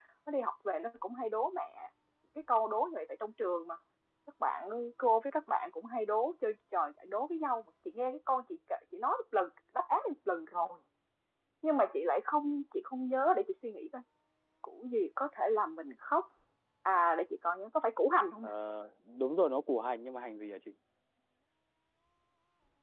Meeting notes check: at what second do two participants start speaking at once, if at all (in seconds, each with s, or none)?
none